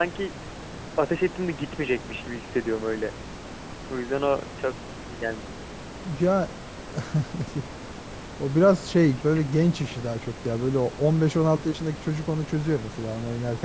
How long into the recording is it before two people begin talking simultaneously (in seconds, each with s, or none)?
none